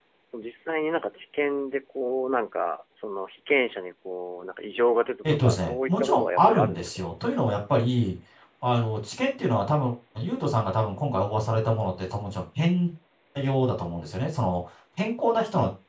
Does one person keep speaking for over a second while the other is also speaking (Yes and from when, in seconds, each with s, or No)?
Yes, from 5.2 s